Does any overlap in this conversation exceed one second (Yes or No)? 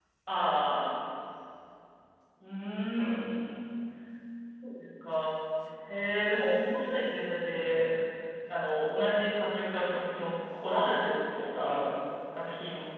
No